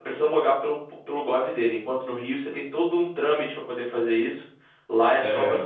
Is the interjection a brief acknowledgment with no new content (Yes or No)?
Yes